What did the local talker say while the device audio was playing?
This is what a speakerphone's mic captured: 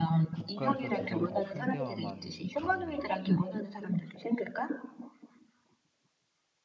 국가에서 지정된 상대와만 가능해.

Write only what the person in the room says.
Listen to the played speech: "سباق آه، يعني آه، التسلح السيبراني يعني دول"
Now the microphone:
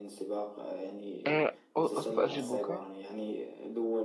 آه، أصف أجيبك

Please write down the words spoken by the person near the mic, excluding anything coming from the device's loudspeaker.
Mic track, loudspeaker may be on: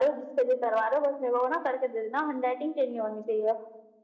none

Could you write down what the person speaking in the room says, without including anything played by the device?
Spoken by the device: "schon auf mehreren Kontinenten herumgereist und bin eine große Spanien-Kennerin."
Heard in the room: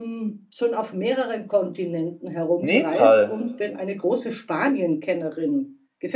Nepal.

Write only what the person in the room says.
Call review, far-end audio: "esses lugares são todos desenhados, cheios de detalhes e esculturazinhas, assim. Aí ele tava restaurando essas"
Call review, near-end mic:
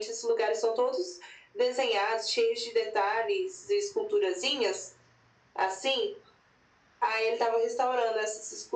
none

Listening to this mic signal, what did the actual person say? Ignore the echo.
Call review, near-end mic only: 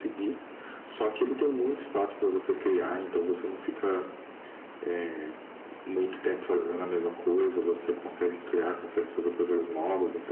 none

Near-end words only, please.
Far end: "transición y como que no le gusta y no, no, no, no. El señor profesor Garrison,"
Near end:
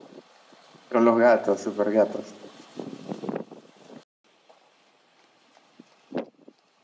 Con los gatos, super gatos.

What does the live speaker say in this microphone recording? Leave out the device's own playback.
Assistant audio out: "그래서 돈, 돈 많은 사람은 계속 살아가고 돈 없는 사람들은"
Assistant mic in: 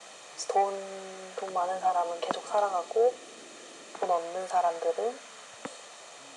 none

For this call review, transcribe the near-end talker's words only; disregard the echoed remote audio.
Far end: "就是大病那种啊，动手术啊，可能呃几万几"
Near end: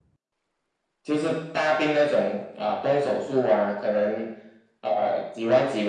none

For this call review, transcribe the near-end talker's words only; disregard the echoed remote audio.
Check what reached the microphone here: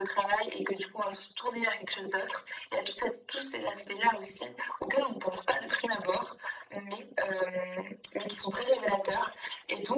none

